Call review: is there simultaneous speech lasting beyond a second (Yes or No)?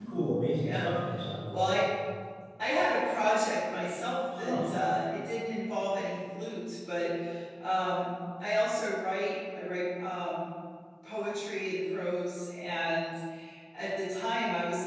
No